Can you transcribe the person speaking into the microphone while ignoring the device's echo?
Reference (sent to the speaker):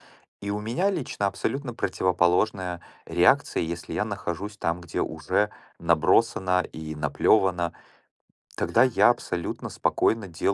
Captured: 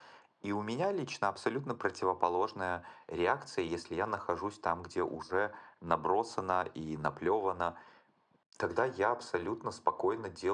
none

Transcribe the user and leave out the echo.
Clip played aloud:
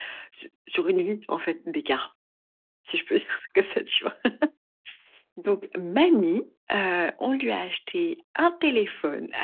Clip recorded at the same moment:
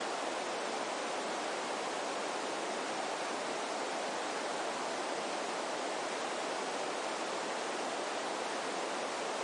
none

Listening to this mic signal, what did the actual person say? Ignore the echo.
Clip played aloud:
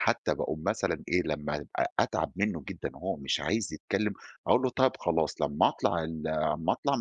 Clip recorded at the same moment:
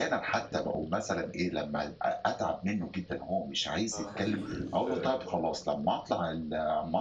آه خفيف مش-

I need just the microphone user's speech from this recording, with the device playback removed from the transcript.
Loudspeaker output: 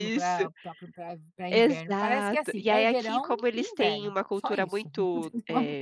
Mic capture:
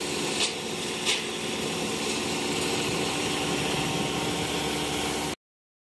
none

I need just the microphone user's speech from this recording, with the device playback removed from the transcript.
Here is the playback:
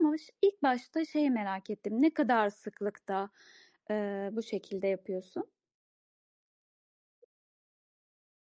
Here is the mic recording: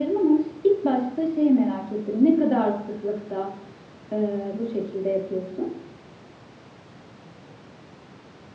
none

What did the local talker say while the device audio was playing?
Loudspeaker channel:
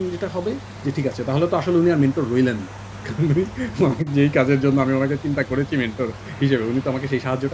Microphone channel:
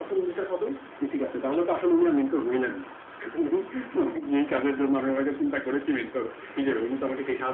none

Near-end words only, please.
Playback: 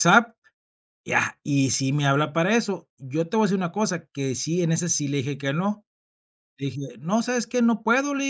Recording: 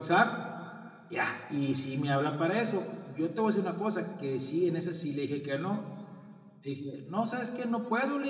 none

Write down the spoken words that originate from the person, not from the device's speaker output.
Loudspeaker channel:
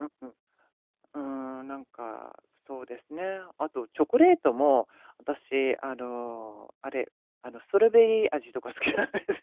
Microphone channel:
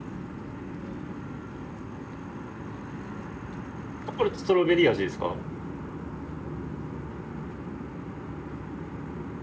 ョコレートストロベリー味ですか？

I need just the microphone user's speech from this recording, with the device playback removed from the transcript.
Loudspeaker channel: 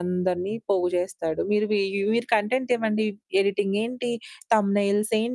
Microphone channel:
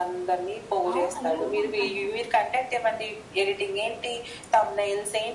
అవును. అలా కూడా ఉంటాయా?

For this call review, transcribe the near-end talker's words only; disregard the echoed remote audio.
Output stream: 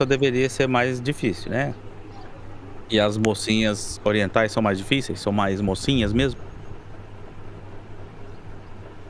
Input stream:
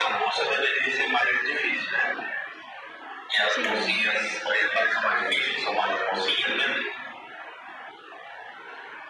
Sim.

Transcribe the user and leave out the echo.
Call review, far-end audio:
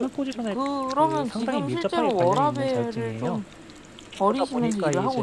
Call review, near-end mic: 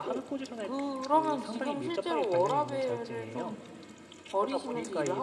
none

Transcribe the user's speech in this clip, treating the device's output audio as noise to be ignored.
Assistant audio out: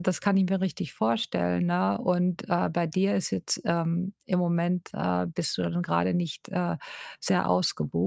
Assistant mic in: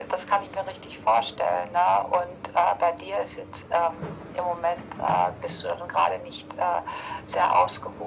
none

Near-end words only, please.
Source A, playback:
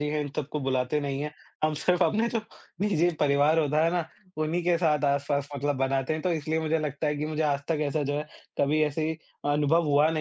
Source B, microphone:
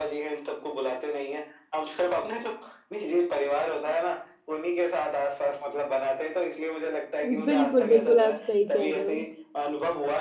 बिल्कुल, बिल्कुल। आप सही कह रहे हो।

